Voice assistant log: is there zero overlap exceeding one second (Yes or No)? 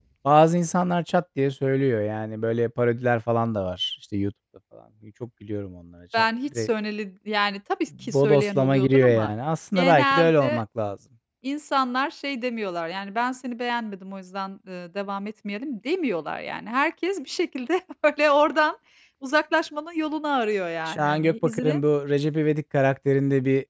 No